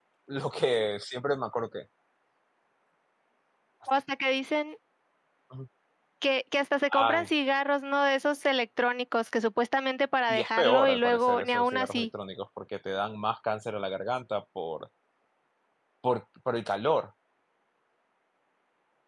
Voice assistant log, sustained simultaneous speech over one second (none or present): present